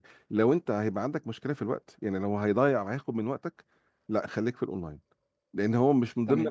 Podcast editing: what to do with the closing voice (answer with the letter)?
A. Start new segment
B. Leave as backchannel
B